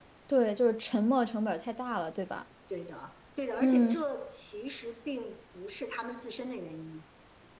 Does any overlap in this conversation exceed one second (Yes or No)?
No